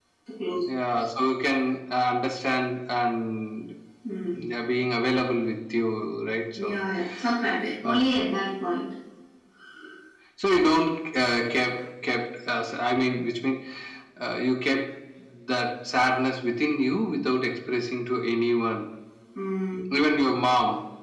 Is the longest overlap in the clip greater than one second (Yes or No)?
No